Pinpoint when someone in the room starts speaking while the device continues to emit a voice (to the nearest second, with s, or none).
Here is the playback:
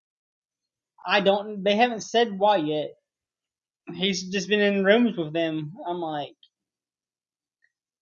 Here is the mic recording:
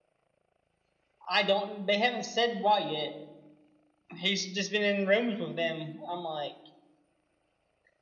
none